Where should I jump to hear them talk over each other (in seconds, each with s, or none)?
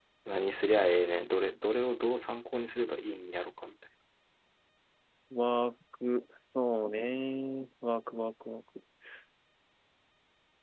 none